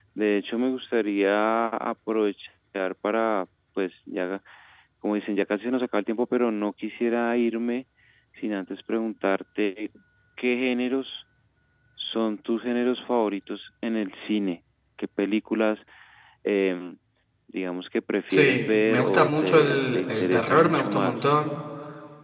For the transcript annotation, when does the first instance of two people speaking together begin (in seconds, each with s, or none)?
18.3 s